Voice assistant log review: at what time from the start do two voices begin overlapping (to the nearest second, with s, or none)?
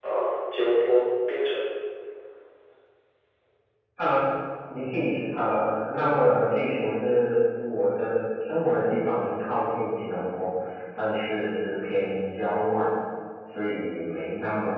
none